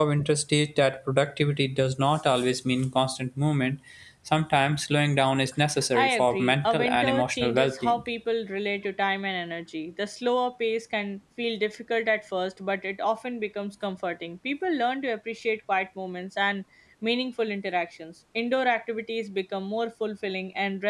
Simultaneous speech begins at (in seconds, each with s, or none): 5.9 s